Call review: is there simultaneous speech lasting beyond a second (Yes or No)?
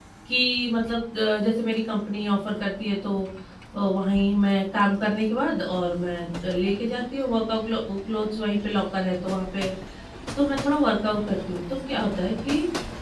No